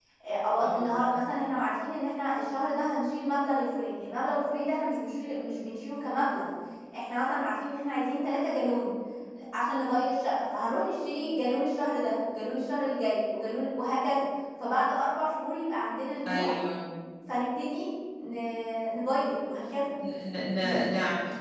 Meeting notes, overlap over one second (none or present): none